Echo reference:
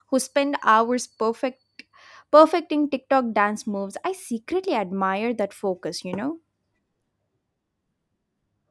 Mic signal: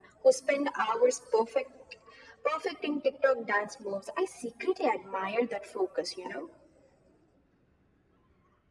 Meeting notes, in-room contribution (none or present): none